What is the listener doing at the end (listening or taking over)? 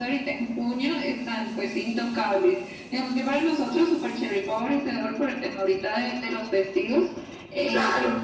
listening